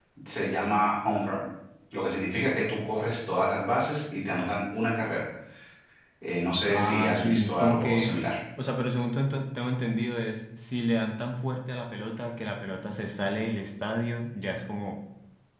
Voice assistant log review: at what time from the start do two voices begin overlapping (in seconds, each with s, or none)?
6.7 s